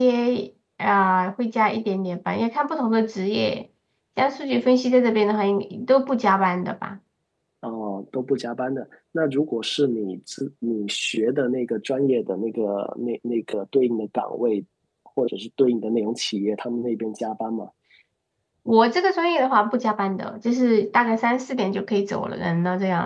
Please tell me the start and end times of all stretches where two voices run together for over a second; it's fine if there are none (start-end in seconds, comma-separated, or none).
none